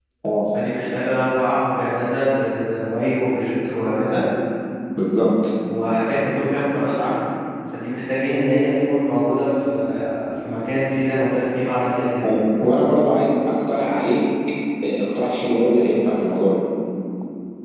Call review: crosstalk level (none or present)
none